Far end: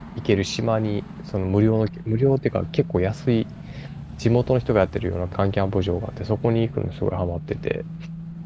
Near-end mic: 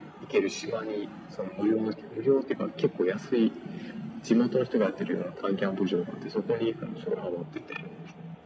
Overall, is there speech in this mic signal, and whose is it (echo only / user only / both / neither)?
echo only